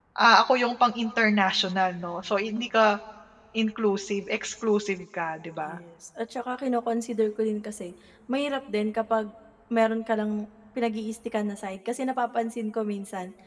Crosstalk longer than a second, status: none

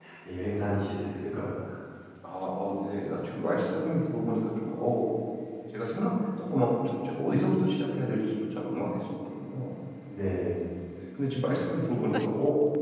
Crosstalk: none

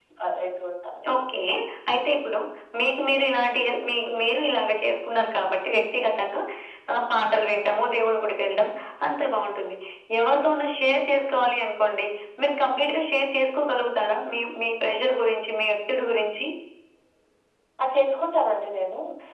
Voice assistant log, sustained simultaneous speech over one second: none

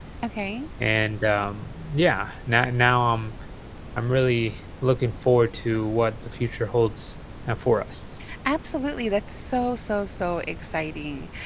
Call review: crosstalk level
none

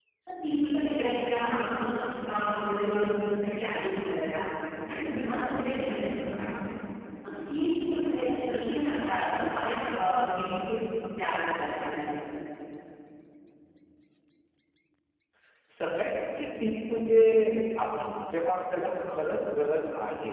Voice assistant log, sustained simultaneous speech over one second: none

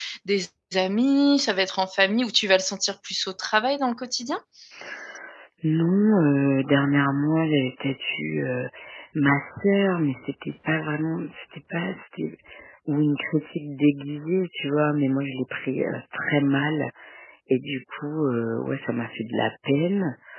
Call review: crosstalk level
none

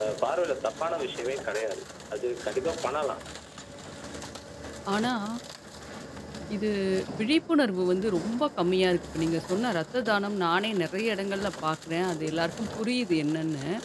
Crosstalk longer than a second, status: none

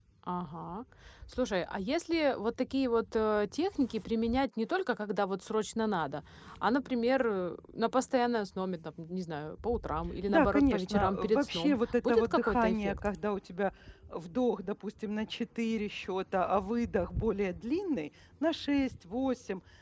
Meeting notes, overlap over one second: present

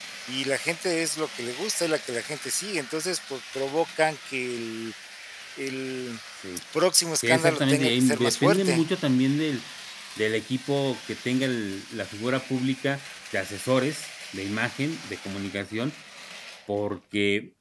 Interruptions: present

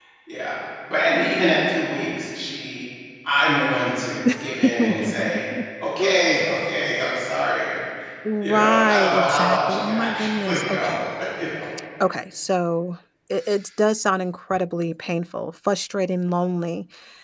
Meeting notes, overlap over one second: present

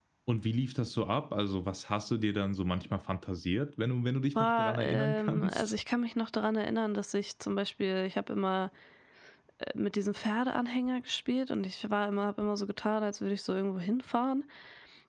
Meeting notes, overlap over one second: present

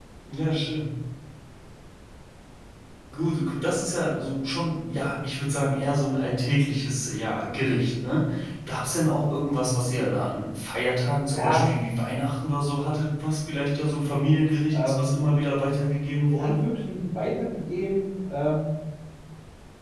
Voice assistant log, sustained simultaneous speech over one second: none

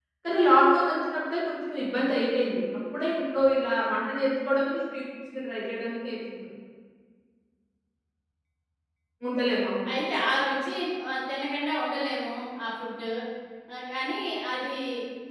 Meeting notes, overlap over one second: none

